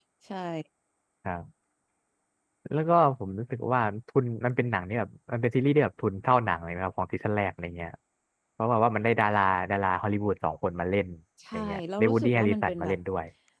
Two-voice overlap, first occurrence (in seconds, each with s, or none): 11.4 s